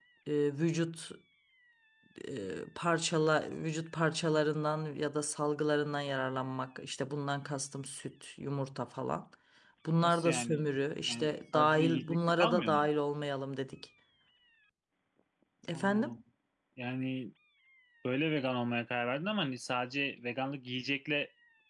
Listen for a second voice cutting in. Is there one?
Yes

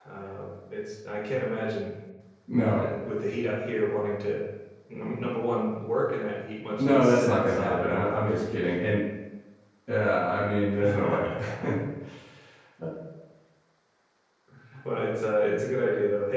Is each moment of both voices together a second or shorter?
No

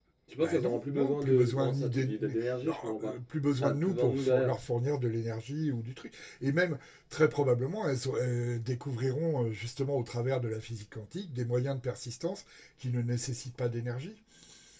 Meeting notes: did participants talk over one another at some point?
Yes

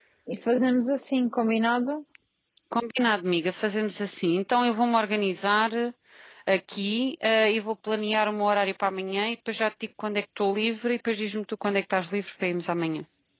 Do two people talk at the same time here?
No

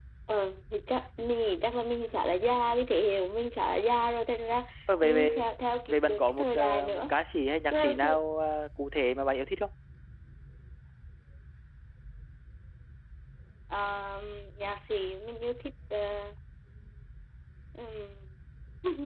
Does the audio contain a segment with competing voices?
Yes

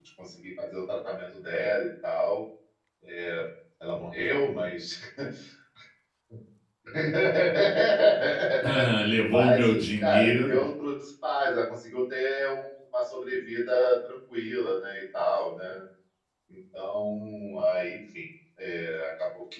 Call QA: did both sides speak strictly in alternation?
No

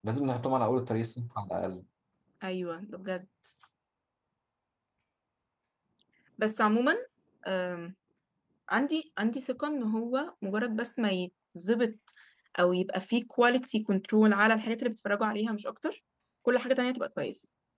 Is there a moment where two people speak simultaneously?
No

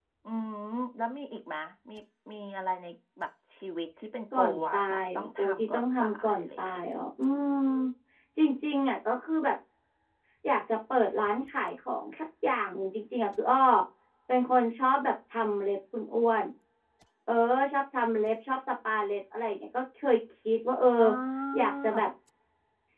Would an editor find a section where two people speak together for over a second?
Yes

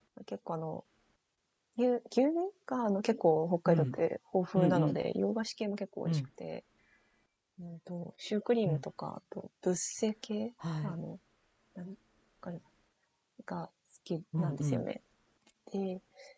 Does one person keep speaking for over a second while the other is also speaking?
No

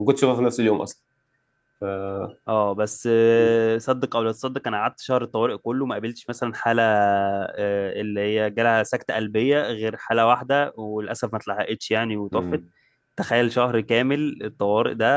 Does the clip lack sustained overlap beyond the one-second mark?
Yes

